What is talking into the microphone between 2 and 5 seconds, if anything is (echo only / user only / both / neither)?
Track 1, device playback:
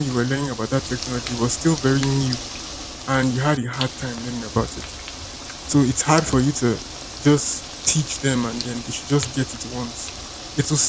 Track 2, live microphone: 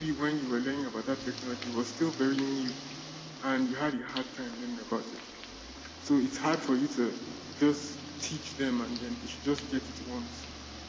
echo only